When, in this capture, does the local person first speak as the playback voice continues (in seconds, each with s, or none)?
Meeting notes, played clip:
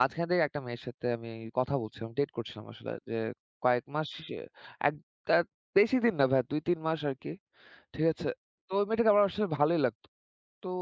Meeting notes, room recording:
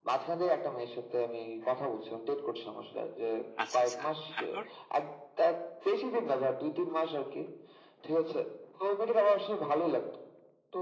3.6 s